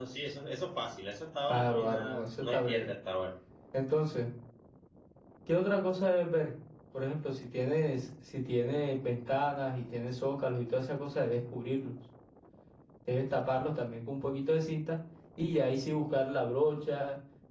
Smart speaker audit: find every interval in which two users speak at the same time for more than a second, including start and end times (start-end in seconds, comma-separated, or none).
1.5-2.9